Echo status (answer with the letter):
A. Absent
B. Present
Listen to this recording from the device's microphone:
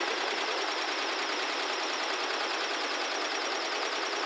A